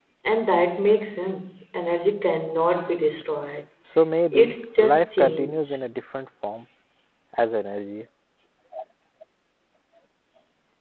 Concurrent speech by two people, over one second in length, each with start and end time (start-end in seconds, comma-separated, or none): 4.3-5.7